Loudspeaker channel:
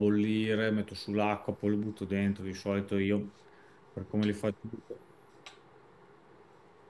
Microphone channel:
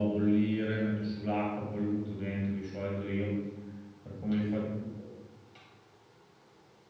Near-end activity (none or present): none